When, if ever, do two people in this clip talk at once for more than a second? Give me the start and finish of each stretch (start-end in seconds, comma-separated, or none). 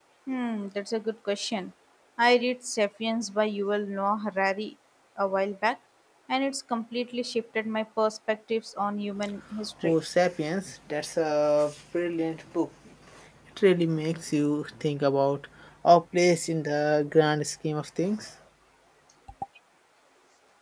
none